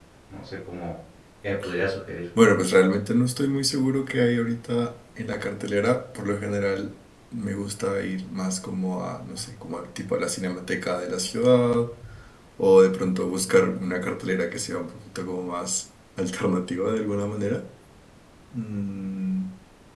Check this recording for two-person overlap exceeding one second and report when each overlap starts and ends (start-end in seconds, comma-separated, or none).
none